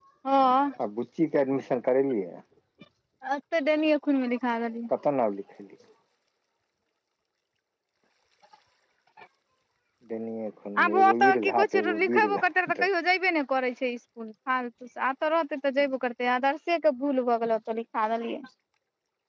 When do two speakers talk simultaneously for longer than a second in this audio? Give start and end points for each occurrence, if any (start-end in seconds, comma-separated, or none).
10.8-12.8